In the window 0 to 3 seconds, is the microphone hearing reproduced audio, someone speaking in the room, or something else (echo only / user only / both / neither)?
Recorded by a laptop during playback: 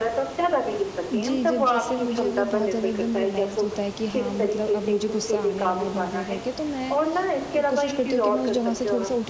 both